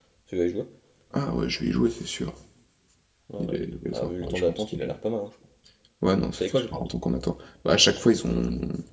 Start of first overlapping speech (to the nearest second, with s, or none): 3 s